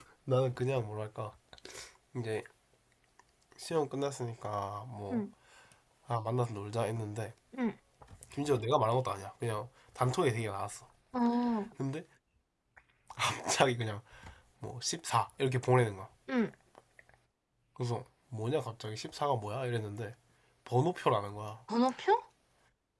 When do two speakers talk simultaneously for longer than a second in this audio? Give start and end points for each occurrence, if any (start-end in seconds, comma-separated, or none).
none